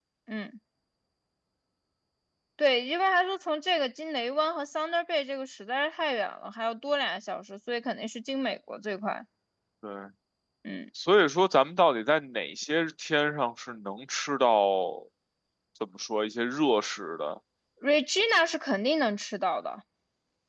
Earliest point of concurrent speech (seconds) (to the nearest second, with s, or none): none